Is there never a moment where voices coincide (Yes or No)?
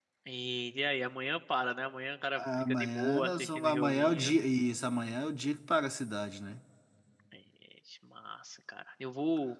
No